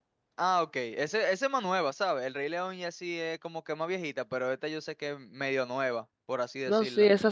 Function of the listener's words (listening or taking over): taking over